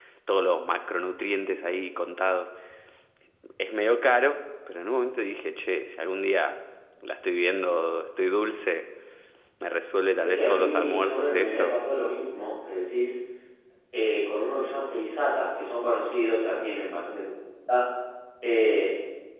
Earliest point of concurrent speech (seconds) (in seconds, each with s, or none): 10.2 s